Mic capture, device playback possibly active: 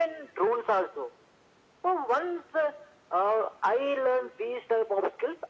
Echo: present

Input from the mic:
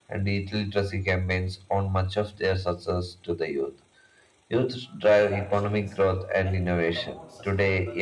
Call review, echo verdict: present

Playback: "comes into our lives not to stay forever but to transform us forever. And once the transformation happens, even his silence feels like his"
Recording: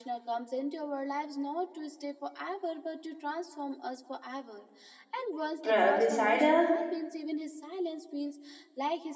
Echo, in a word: present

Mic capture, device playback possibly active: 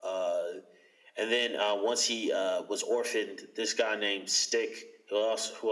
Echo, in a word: present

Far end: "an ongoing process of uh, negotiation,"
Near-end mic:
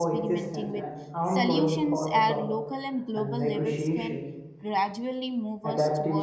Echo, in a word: present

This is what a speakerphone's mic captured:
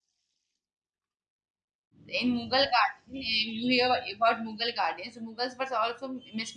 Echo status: none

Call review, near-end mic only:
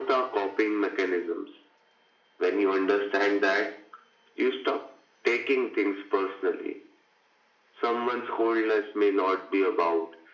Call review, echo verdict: present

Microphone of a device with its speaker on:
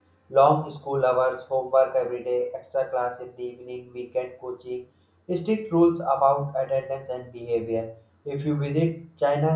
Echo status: none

